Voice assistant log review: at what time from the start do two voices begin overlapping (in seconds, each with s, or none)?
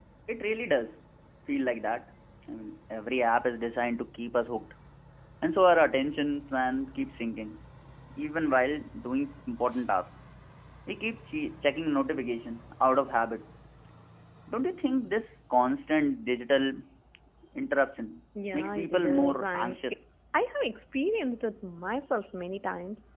18.4 s